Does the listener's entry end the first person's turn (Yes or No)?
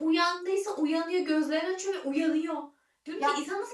No